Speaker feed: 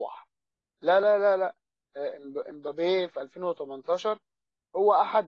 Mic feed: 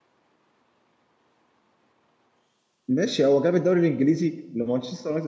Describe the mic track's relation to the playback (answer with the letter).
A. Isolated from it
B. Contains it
A